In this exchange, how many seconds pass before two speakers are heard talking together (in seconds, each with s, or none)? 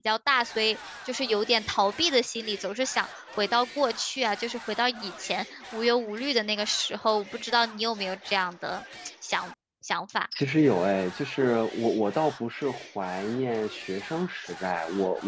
none